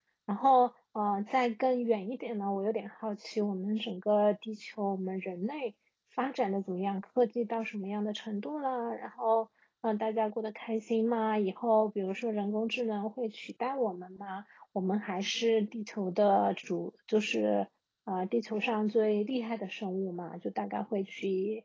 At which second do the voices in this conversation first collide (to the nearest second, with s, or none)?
none